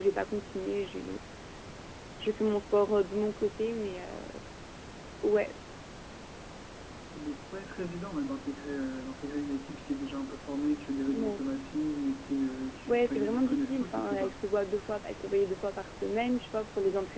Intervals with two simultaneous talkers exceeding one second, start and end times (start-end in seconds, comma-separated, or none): 12.9-14.3